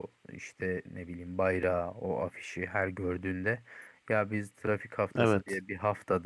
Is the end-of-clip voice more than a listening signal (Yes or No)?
No